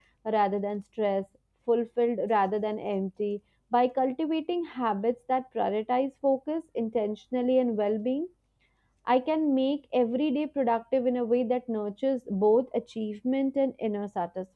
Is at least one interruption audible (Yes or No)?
No